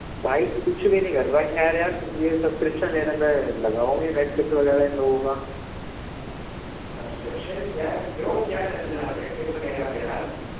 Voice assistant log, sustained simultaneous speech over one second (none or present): none